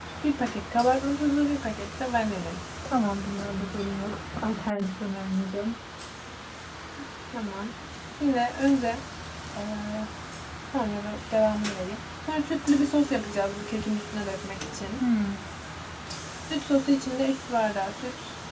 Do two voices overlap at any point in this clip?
No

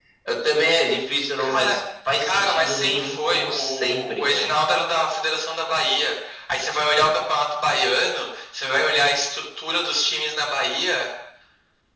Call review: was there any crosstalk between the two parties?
Yes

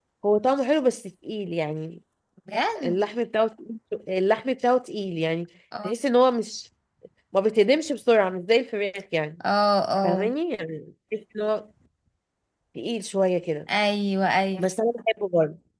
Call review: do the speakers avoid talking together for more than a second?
Yes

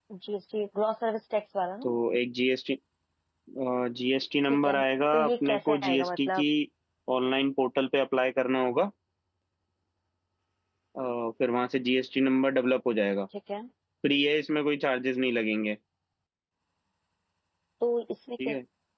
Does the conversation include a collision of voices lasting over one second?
Yes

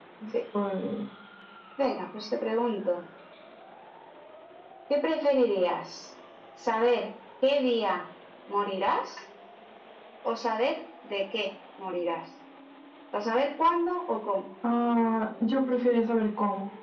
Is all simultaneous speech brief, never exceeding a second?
Yes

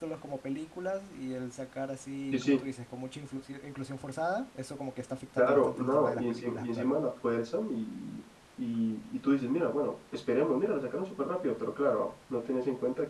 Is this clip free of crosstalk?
No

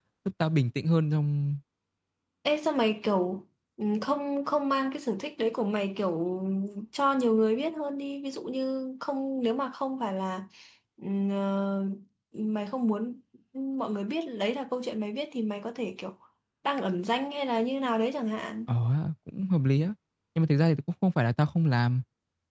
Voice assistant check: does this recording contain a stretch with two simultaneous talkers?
No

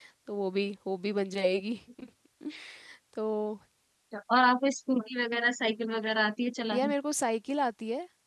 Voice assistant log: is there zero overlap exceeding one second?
Yes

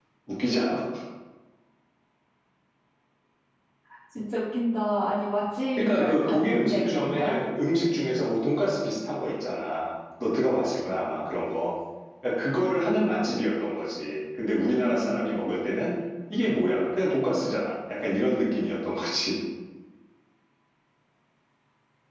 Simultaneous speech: Yes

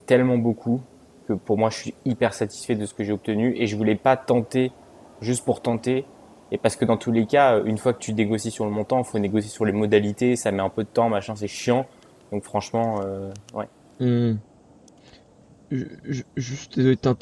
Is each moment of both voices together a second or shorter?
Yes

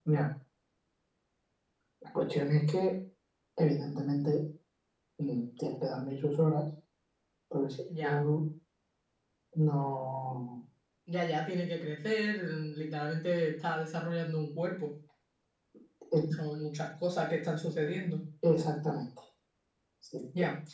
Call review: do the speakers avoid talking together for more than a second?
Yes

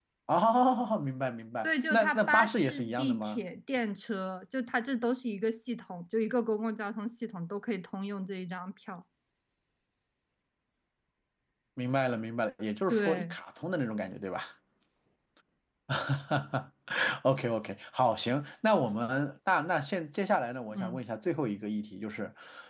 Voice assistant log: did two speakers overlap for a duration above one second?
Yes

